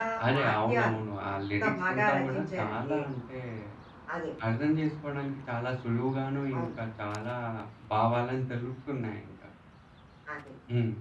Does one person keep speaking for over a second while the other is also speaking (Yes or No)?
Yes